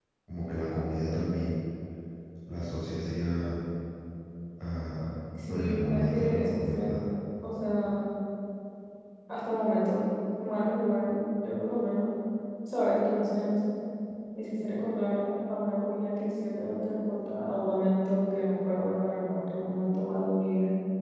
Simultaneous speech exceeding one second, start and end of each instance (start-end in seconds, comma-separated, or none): 5.5-7.0